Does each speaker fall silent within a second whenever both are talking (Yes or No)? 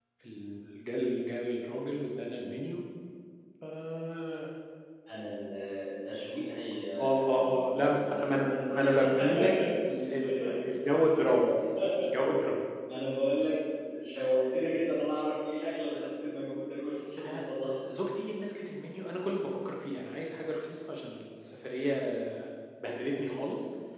No